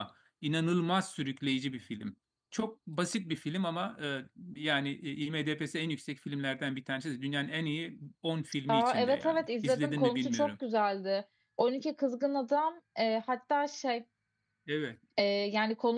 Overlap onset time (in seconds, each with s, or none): 8.7 s